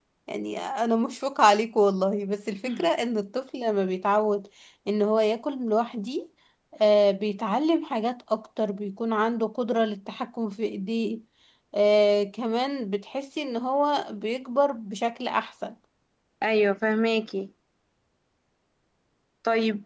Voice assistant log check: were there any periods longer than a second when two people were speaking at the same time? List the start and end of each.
none

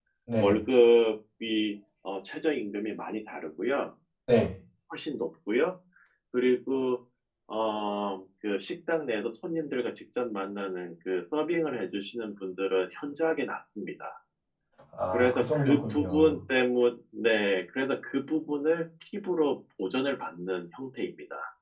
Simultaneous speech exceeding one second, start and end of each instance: 15.1-16.4

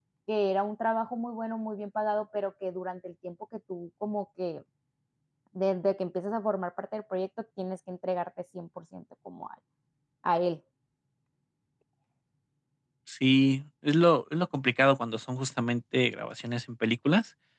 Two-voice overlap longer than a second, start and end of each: none

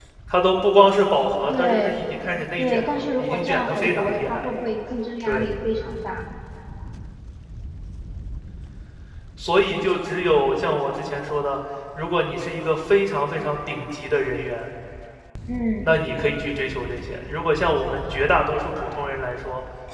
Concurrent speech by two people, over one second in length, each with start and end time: 2.6-4.5

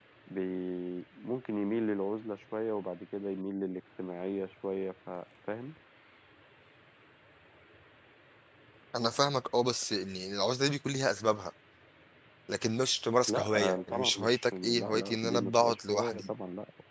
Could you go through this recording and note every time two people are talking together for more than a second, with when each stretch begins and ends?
13.3-16.3

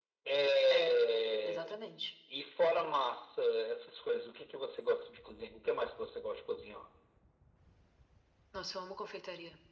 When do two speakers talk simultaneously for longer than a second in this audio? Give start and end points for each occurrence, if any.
none

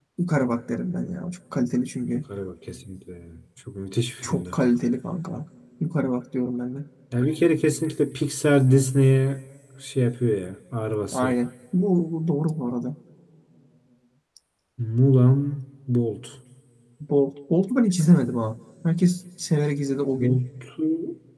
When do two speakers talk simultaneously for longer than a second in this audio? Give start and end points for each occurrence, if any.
none

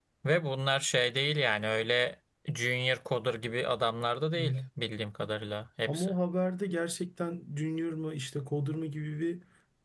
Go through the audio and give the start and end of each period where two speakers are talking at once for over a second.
none

